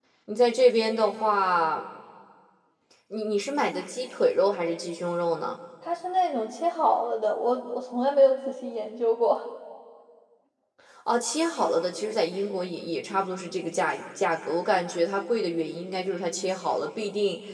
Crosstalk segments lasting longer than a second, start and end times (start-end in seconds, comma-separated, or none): none